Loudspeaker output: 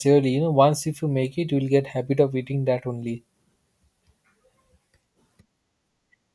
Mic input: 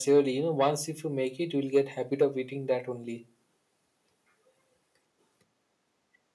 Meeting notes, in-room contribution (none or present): none